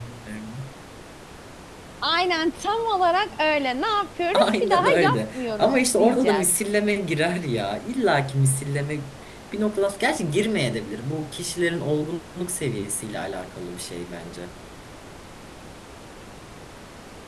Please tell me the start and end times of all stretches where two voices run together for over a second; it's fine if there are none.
4.3-6.5

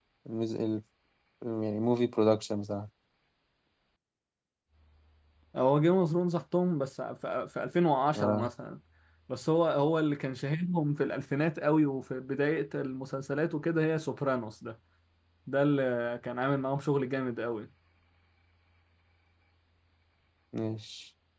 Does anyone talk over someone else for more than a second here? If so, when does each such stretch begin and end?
none

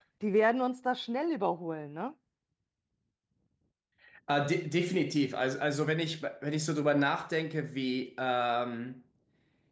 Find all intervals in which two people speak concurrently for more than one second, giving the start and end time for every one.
none

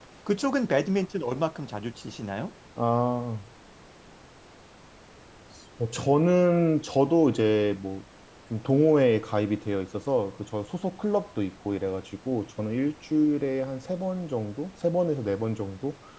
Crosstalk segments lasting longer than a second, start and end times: none

